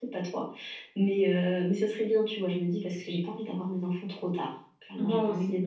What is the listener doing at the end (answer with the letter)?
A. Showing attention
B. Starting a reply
B